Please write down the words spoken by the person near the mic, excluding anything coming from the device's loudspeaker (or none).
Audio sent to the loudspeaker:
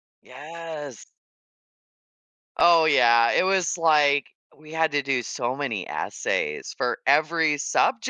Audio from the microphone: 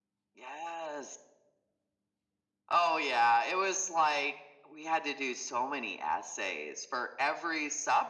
none